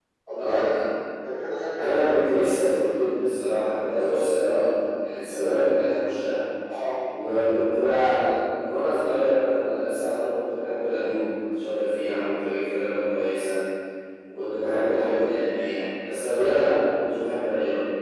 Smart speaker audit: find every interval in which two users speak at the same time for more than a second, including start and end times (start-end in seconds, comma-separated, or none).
none